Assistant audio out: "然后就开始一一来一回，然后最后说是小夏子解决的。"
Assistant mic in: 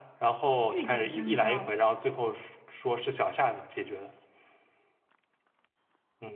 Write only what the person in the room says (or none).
玉简香消，